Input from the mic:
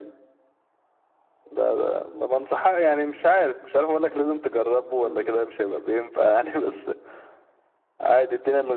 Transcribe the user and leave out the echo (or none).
مم.